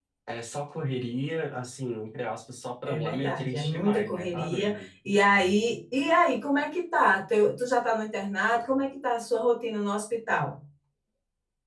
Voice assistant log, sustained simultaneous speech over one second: present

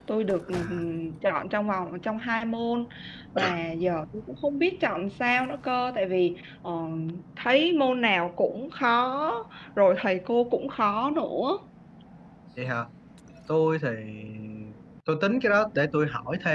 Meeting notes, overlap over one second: none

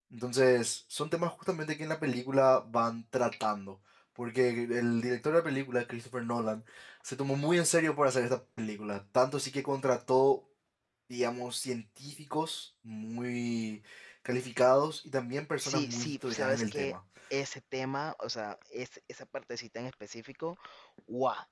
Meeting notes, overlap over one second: present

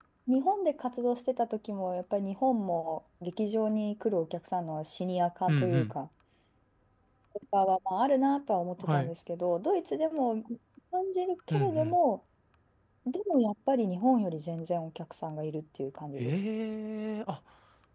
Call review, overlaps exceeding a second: none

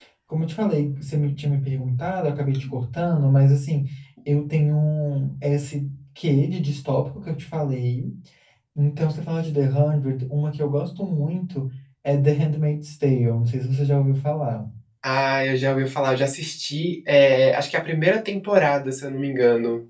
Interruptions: none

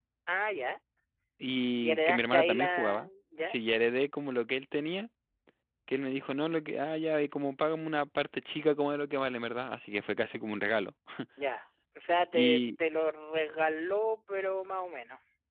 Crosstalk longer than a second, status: present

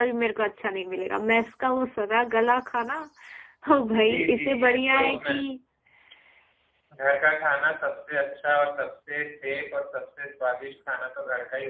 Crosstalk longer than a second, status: present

